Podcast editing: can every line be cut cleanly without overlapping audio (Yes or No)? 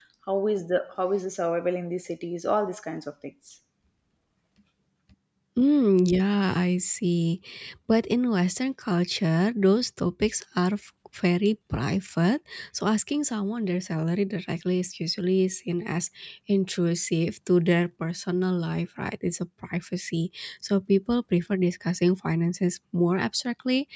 Yes